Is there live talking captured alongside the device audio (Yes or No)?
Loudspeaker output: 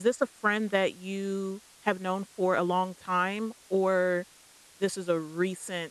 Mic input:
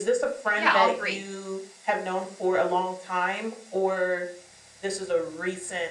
Yes